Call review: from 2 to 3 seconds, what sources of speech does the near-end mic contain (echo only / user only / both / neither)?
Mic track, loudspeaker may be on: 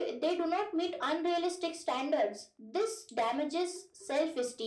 echo only